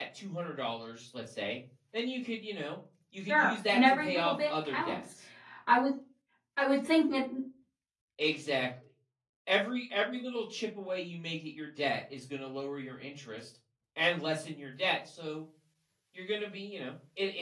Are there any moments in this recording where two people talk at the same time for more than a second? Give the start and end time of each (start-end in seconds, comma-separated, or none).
3.3-5.0